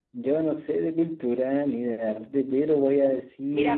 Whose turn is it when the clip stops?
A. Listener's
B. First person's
A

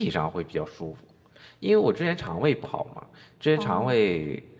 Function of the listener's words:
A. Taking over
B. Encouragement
B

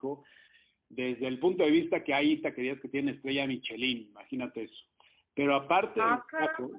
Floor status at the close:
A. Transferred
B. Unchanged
B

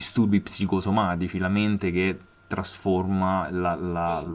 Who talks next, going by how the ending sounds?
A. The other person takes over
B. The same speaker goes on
A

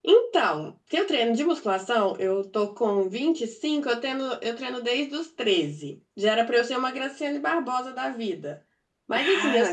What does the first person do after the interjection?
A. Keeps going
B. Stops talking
A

